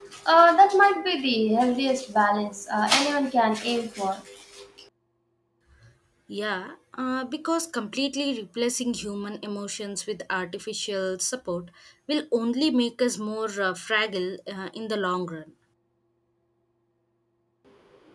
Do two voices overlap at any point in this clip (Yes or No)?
No